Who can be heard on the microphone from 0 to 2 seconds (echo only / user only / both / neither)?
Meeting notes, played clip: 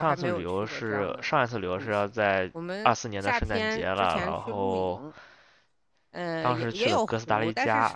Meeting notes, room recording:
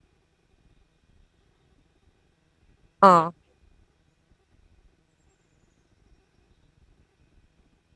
neither